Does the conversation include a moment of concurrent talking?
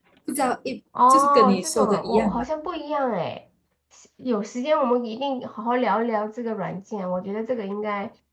Yes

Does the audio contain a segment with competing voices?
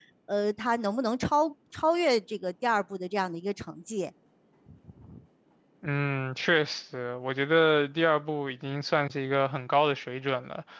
No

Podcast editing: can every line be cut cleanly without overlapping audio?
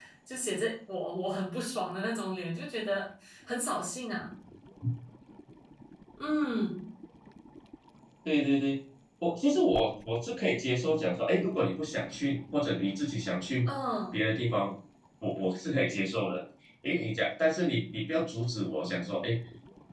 Yes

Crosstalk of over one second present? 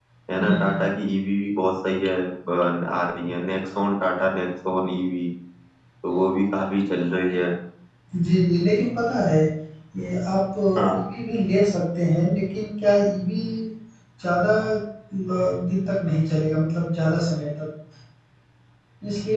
No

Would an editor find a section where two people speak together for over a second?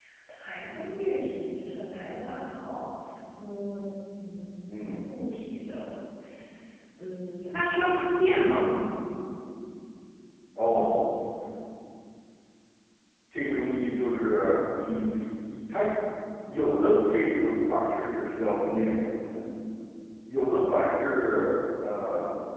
No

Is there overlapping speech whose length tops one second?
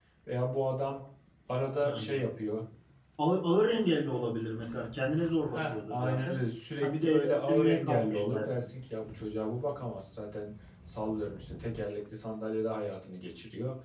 Yes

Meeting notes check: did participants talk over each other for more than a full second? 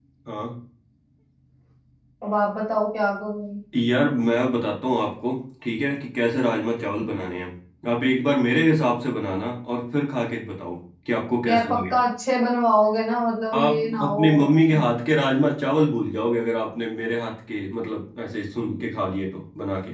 Yes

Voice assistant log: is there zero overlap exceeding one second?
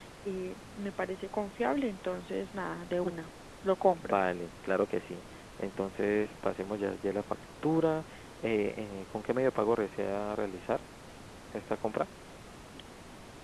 Yes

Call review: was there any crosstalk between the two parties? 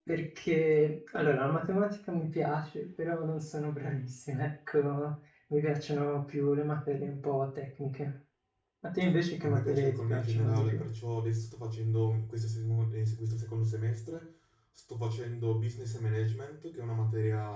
Yes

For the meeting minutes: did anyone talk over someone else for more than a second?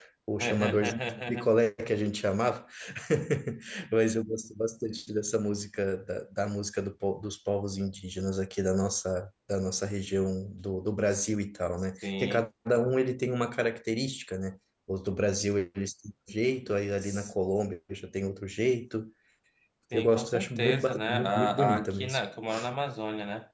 Yes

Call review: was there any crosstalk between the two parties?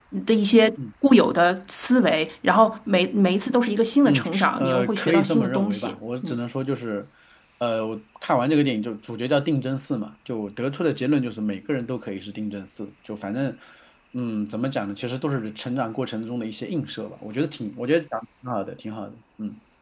Yes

